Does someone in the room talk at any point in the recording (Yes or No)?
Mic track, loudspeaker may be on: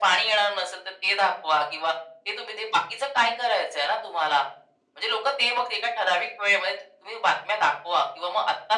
No